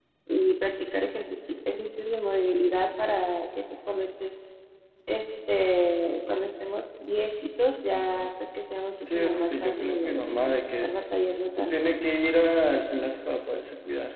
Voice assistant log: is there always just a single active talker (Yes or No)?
No